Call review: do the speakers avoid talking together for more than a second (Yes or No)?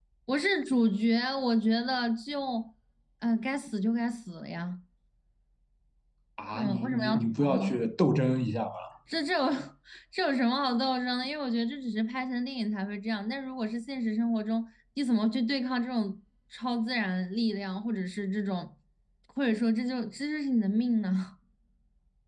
No